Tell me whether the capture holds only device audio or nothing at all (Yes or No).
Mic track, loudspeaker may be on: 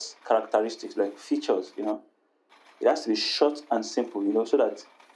Yes